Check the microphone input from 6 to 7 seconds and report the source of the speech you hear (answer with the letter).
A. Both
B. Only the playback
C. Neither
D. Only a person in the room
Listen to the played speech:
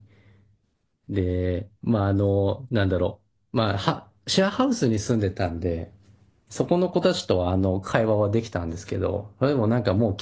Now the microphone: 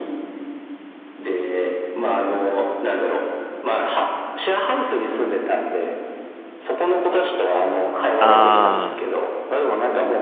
B